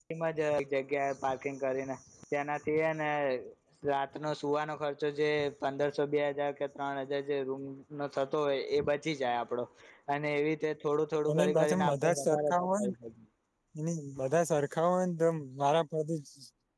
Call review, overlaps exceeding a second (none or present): present